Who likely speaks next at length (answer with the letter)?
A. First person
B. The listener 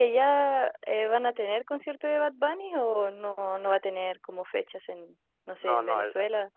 B